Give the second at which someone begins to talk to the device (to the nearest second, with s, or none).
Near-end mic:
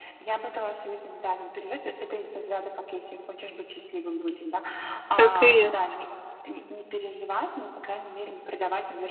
5 s